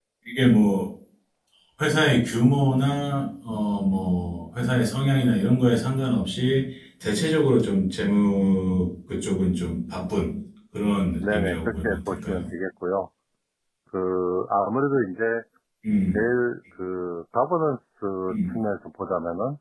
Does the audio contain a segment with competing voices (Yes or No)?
Yes